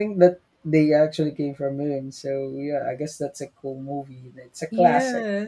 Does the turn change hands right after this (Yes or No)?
Yes